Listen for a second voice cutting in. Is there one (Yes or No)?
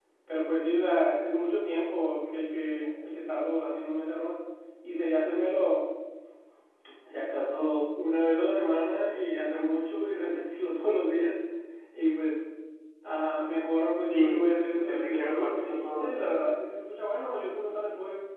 Yes